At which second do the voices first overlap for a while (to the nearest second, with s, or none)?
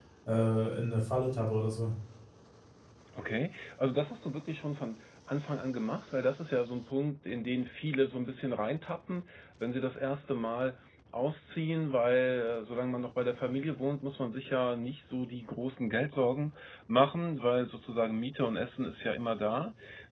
none